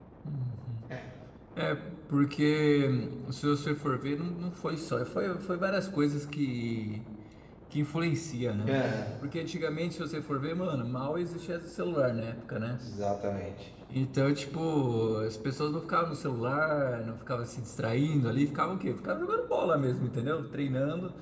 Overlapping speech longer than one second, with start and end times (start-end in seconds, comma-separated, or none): none